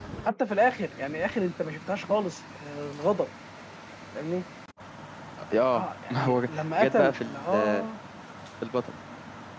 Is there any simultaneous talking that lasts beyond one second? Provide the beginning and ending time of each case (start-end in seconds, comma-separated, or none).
5.7-7.8